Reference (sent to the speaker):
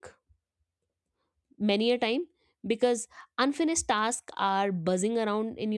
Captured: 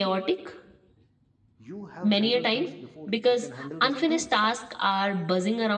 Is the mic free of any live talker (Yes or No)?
No